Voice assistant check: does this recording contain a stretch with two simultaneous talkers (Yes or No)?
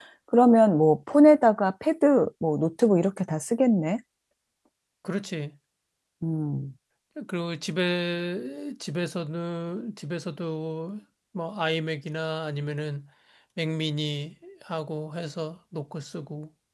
No